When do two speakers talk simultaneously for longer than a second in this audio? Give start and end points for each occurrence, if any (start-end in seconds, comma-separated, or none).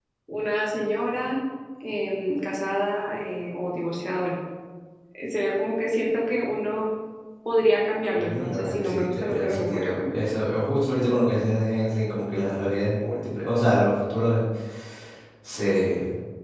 8.2-10.2